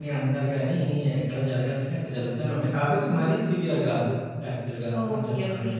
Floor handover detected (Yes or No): Yes